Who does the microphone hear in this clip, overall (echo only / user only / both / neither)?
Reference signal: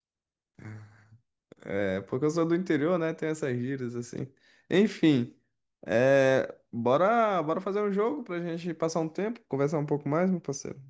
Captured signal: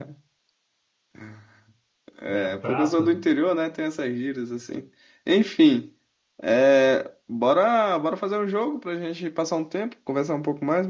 both